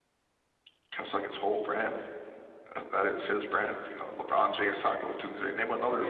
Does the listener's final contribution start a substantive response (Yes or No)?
Yes